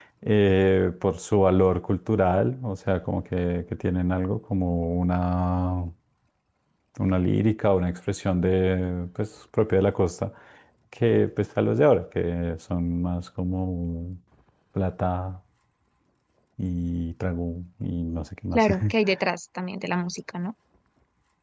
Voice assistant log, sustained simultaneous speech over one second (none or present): none